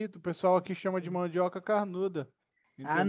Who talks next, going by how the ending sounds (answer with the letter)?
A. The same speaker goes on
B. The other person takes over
B